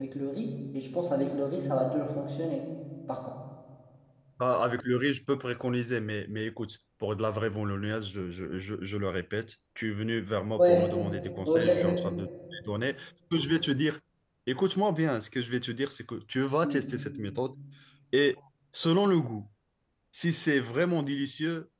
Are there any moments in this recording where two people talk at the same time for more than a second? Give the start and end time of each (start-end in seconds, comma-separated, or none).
none